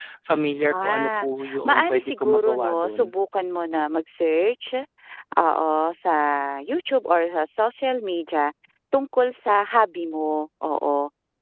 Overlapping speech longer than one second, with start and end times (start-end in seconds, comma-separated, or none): 0.7-3.0